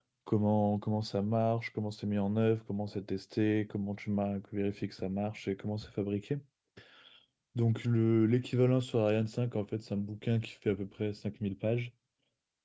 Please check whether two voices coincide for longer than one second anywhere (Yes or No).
No